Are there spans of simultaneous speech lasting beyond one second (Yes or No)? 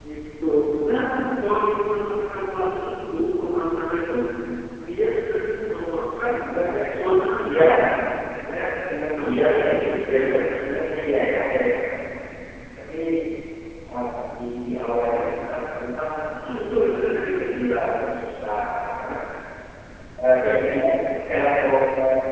Yes